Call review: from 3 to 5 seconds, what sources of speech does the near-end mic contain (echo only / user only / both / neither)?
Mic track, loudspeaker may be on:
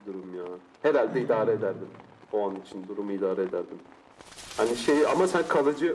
echo only